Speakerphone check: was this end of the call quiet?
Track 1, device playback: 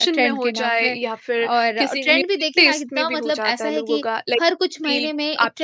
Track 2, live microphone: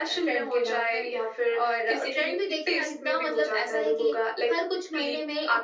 Yes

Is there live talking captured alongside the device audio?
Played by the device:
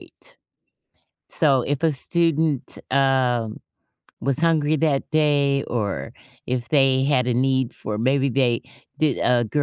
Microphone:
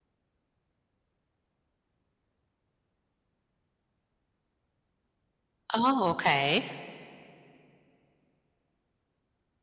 Yes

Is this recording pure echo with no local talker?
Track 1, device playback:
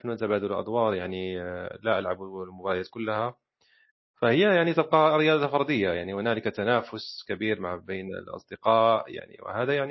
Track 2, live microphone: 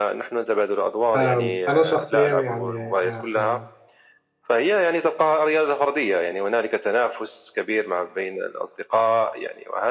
No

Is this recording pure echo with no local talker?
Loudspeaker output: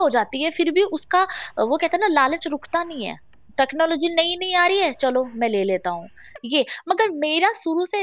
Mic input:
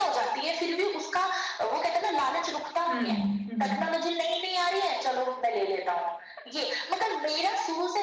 No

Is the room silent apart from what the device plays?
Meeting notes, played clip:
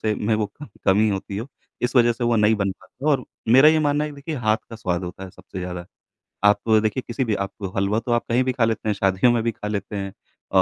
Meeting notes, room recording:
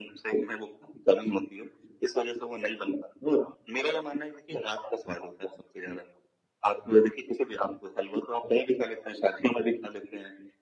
Yes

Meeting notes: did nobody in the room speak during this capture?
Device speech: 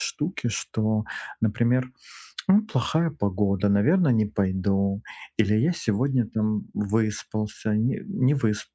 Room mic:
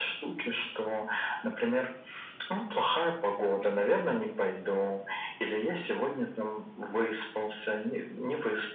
Yes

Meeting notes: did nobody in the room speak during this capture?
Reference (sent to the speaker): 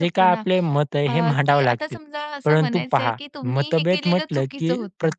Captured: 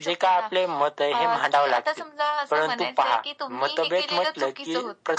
Yes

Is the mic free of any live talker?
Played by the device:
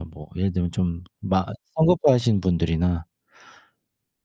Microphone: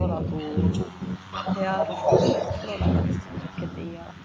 No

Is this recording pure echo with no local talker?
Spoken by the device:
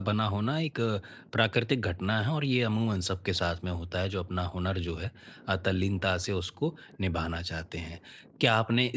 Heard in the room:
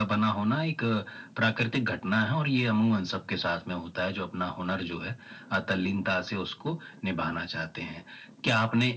Yes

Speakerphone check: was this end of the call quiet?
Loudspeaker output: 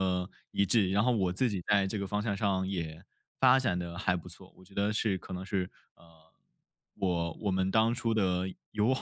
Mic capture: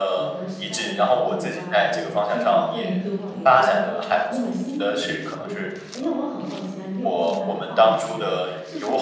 No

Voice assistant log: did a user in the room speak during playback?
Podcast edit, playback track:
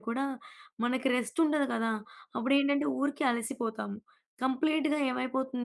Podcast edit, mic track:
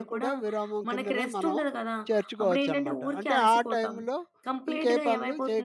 Yes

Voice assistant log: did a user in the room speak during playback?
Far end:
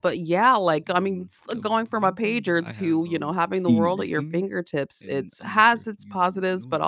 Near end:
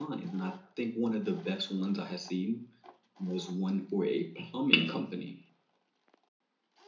Yes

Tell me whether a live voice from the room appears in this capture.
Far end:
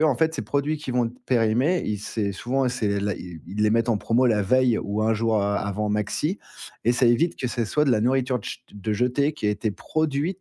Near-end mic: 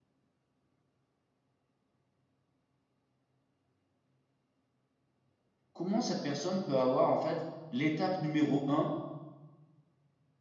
Yes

